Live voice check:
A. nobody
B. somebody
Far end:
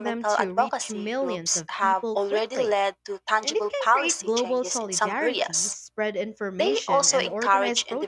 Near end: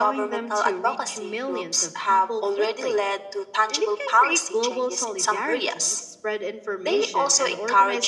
A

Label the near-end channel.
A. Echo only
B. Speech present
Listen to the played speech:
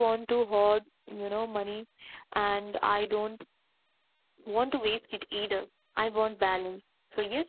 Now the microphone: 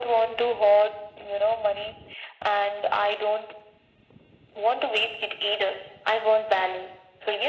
A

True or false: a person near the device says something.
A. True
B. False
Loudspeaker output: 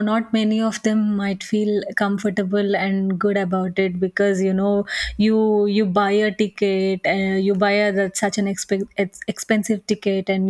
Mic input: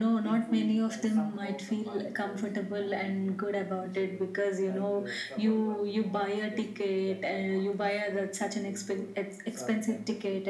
A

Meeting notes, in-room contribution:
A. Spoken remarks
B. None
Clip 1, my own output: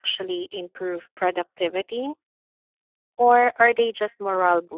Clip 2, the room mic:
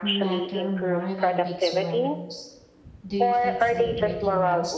A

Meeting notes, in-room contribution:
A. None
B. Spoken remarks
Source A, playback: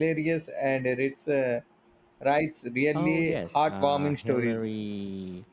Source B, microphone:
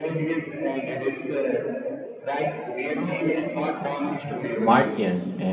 B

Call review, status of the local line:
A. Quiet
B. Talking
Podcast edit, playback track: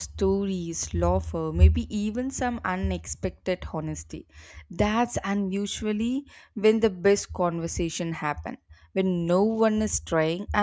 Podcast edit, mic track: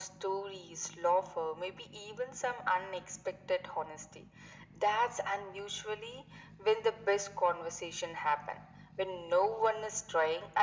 A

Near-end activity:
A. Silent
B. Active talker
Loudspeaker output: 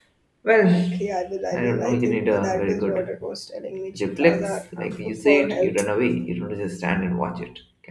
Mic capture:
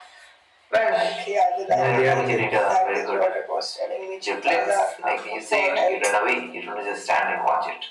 B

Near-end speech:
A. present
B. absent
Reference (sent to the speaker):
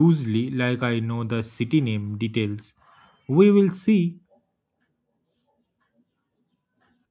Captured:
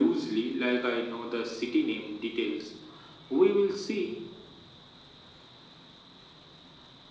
B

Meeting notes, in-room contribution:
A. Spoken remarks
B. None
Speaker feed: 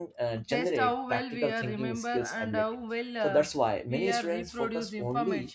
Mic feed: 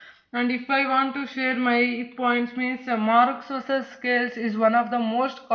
A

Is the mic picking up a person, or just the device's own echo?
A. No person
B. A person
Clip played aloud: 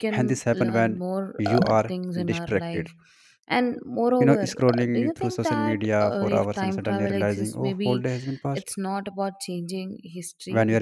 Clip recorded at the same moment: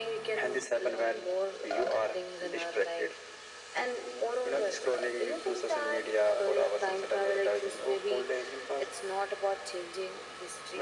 A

